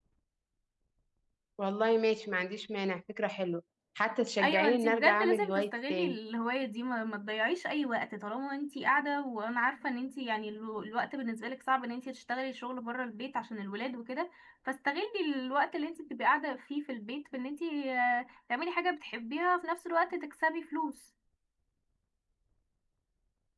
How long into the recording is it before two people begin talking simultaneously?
4.4 s

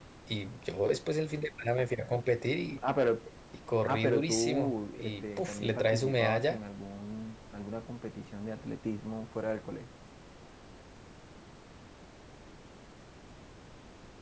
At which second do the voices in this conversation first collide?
3.9 s

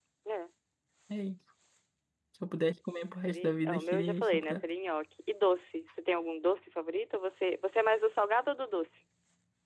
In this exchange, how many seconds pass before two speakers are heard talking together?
3.3 s

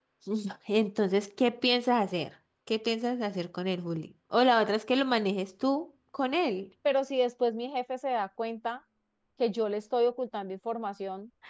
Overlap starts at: none

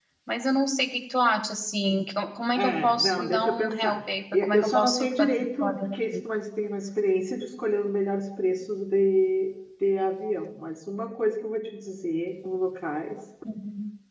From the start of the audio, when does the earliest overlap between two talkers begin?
2.5 s

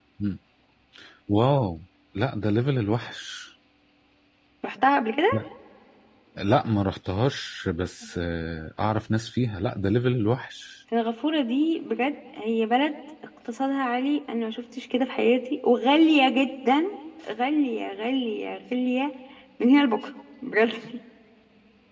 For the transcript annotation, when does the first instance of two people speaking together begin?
none

